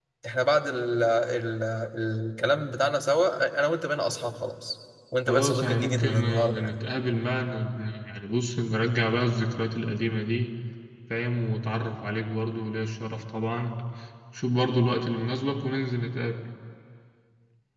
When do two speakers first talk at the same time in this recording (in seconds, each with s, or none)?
5.3 s